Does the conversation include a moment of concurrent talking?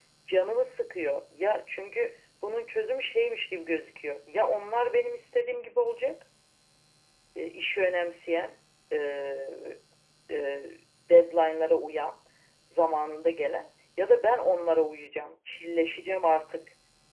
No

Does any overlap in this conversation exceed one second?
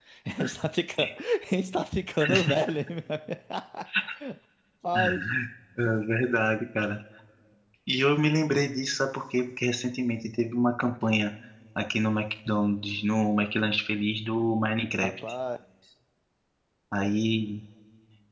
No

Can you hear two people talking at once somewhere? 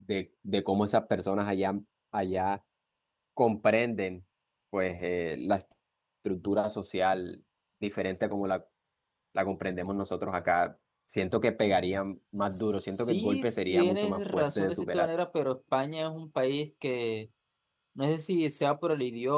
Yes, from 12.4 s

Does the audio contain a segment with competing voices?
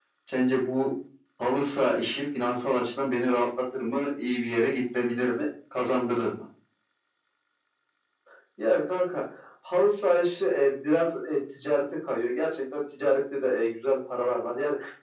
No

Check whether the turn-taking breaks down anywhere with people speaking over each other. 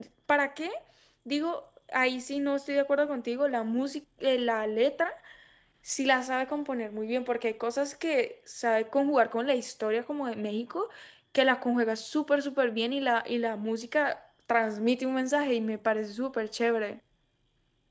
No

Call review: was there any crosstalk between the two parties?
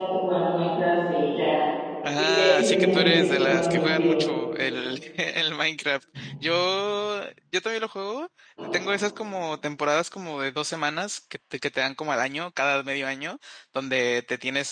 Yes, from 2.2 s

